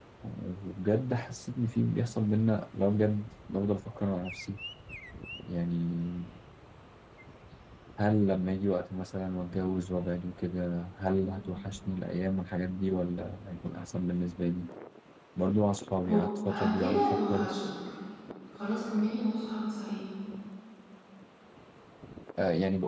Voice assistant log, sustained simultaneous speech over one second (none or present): present